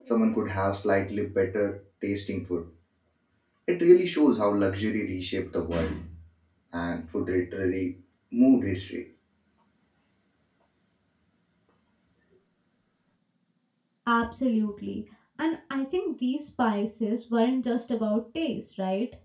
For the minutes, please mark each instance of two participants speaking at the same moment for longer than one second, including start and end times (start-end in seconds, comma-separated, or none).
none